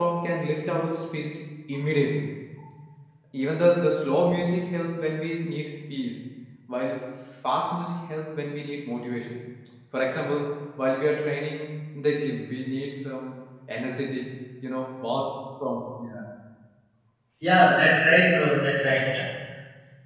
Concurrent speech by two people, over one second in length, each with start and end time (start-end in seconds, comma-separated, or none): none